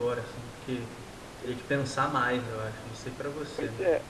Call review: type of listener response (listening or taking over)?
taking over